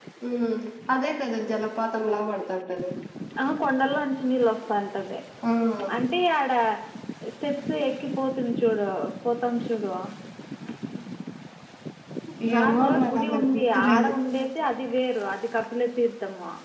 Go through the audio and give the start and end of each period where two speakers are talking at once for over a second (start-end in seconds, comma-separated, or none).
12.6-14.1